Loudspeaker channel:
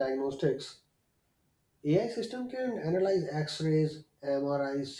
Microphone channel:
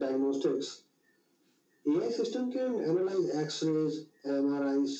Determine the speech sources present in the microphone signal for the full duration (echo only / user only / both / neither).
echo only